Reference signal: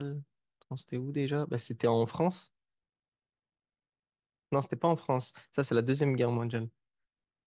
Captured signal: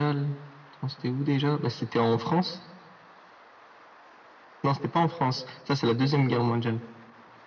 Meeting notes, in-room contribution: none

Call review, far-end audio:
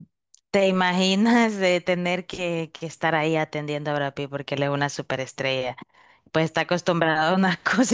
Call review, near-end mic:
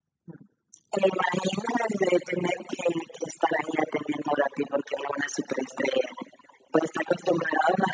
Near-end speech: none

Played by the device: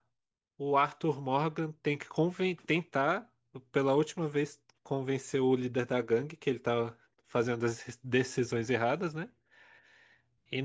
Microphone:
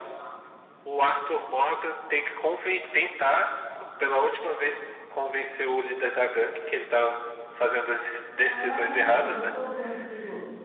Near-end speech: present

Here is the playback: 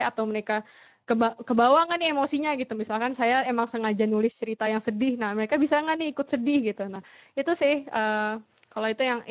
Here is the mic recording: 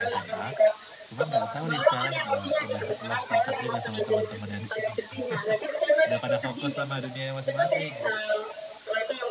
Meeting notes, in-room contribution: present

